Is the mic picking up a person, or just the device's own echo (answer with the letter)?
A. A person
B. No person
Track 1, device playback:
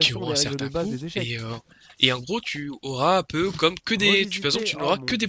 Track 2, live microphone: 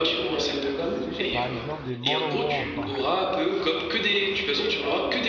A